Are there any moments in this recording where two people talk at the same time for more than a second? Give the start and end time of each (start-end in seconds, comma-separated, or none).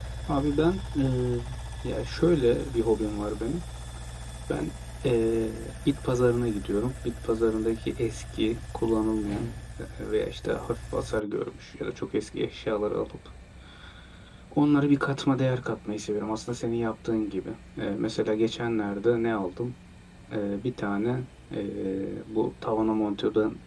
none